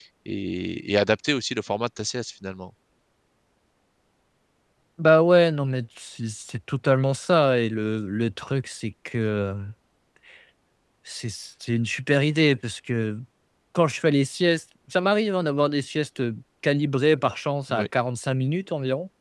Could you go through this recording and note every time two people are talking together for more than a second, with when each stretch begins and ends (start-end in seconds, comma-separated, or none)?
none